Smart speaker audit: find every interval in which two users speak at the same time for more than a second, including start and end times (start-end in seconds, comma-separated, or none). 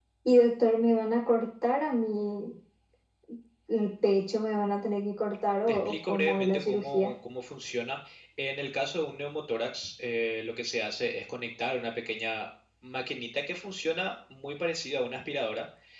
5.7-7.1